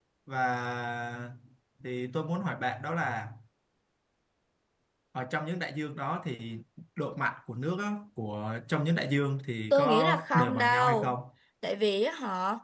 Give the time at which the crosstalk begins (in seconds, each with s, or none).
9.7 s